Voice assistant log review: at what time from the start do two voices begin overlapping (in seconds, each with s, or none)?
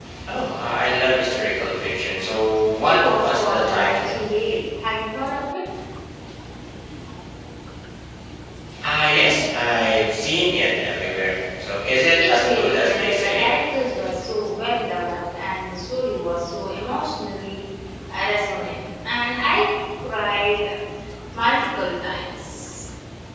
2.8 s